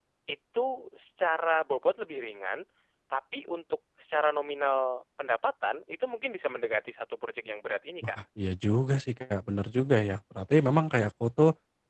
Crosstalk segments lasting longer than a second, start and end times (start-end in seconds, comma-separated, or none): none